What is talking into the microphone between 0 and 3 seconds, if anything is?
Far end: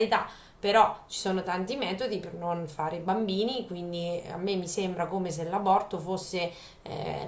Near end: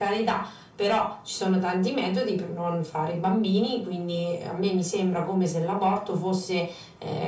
echo only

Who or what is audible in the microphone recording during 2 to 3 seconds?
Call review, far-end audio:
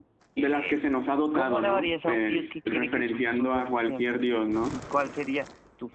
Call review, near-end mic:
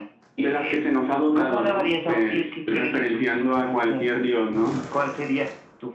echo only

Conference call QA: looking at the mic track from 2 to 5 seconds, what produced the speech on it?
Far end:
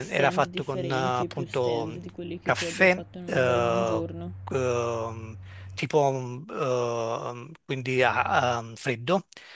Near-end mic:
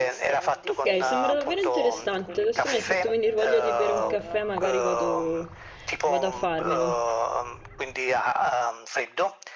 both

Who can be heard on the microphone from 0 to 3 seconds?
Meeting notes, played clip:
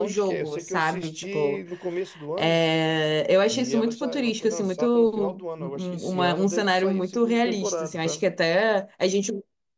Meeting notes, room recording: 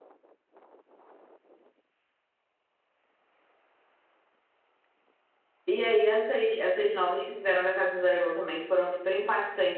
neither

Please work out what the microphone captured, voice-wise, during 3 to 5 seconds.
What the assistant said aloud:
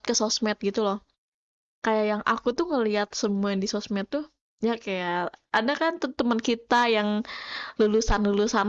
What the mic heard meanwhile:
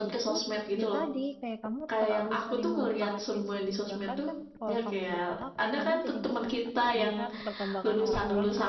both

